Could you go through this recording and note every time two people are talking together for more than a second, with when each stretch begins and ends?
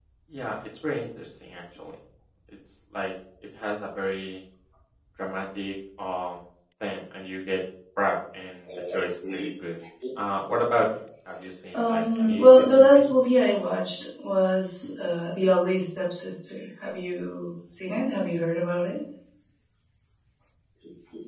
11.7-13.1

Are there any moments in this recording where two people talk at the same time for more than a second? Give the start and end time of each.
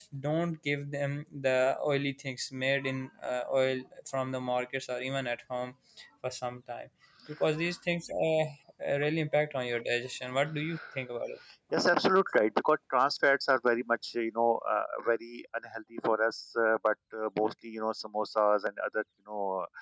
none

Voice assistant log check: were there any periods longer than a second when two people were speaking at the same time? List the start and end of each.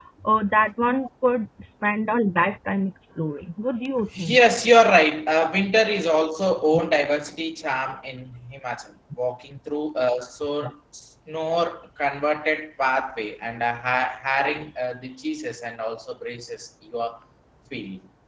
none

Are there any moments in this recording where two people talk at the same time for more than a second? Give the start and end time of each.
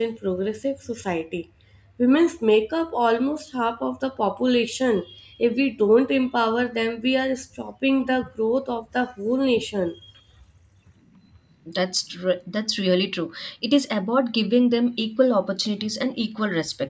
none

